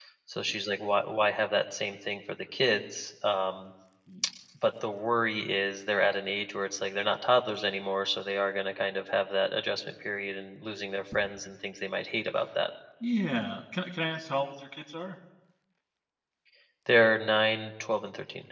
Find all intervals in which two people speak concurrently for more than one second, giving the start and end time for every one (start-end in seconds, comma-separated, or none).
none